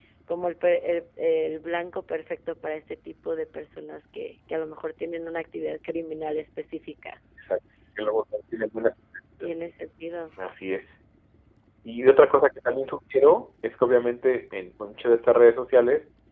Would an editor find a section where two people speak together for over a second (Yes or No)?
No